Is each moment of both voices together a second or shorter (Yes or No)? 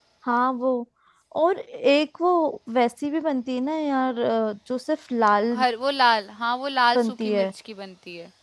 Yes